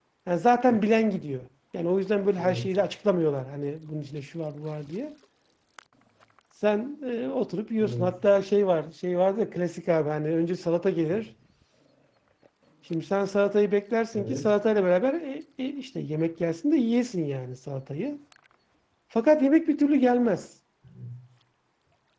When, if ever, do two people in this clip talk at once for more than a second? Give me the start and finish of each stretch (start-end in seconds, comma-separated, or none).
none